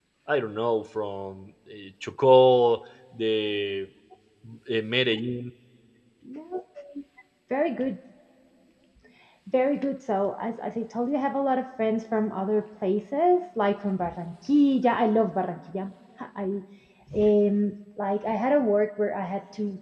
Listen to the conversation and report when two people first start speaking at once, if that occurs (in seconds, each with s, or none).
none